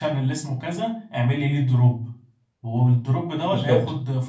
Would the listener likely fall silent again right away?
Yes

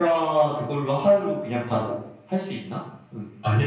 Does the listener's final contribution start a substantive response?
Yes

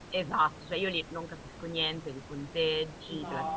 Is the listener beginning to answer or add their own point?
No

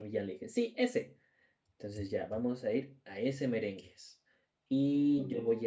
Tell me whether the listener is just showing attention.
Yes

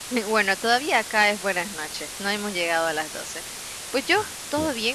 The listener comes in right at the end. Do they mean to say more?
No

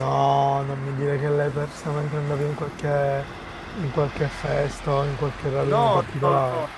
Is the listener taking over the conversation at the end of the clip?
Yes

